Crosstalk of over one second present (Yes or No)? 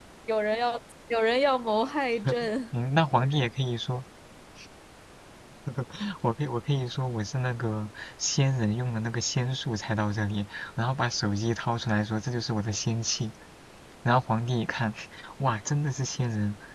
No